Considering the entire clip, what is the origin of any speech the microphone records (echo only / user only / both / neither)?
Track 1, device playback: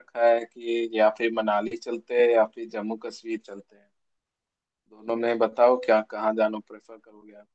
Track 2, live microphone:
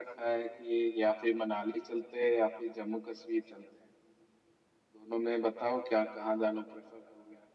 echo only